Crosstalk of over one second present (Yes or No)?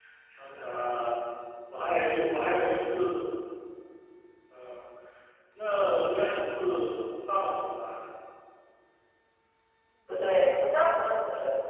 No